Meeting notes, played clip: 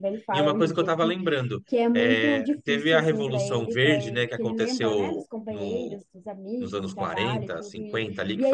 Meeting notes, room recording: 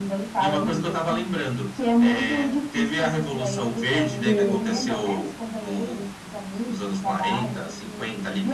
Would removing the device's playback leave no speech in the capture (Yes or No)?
No